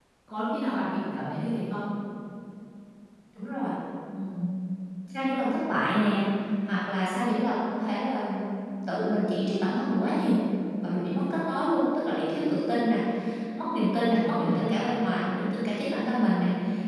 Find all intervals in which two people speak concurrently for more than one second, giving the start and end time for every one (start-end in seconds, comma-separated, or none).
none